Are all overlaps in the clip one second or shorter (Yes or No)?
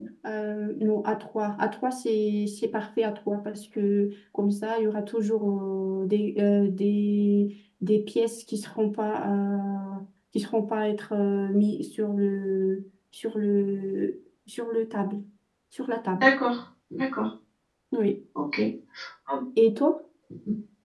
Yes